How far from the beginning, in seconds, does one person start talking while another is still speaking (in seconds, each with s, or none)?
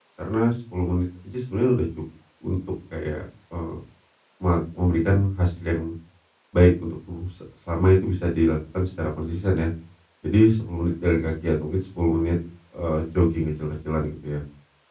none